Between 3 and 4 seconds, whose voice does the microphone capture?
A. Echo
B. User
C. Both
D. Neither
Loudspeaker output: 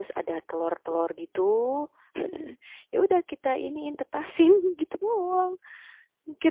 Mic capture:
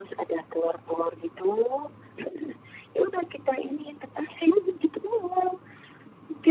A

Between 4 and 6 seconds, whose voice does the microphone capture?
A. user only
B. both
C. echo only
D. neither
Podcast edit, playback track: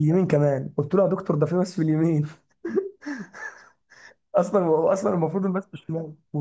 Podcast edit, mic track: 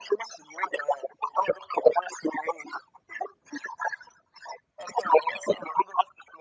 C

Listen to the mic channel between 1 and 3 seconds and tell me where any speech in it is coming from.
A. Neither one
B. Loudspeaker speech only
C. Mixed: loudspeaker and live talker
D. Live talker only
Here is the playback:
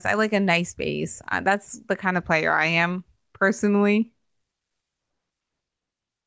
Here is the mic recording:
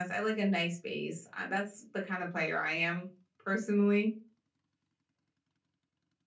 B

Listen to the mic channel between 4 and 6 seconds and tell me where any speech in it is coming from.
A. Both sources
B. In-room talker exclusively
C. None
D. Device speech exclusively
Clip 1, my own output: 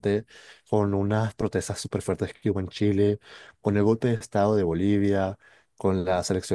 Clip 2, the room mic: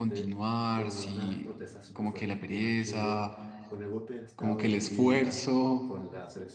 A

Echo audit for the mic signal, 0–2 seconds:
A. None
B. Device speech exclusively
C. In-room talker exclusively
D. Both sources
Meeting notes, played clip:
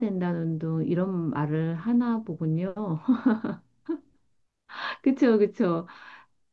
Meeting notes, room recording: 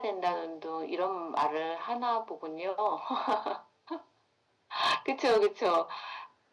B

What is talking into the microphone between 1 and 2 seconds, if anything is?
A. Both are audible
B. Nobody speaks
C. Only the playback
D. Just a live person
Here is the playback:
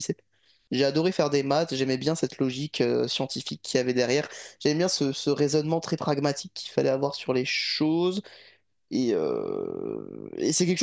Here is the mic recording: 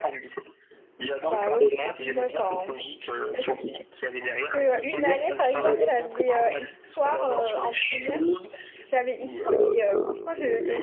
A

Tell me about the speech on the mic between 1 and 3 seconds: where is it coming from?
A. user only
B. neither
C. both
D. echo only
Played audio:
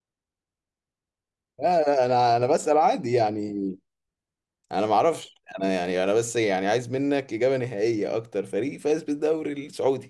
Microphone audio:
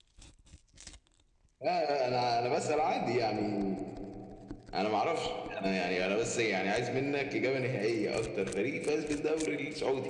D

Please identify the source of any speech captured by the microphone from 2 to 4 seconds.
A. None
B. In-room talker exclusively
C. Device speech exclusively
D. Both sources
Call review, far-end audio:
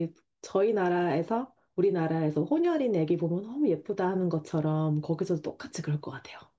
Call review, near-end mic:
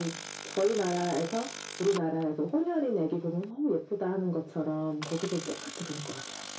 C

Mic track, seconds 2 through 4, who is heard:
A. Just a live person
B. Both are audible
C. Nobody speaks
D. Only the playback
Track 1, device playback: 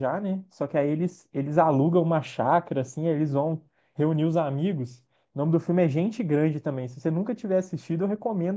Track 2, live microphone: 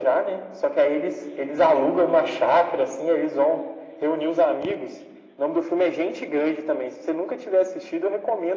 D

